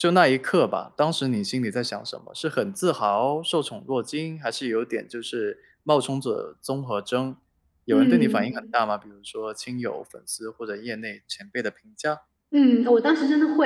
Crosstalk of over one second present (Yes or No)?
No